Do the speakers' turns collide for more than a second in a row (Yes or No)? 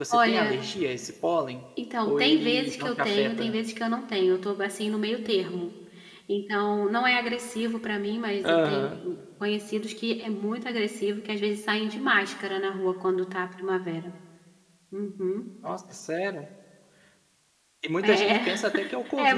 Yes